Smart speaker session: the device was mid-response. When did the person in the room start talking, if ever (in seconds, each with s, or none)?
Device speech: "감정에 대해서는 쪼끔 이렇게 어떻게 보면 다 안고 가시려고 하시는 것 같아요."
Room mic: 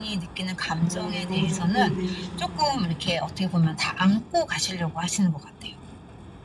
0.8 s